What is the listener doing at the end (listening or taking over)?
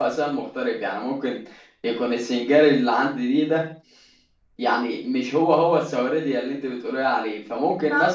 taking over